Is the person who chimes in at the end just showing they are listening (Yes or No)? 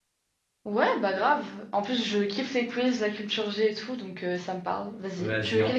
No